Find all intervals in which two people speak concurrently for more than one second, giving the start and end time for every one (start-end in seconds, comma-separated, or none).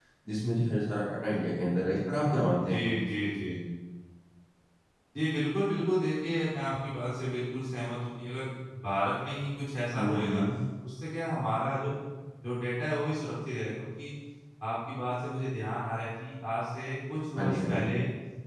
none